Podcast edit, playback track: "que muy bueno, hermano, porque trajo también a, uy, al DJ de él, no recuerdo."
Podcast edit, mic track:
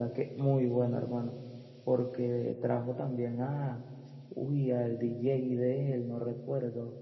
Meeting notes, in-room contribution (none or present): none